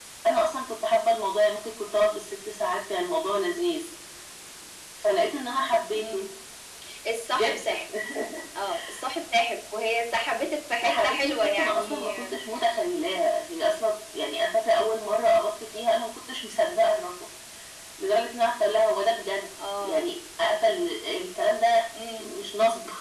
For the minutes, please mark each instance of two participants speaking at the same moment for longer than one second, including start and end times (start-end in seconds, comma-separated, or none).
10.8-12.1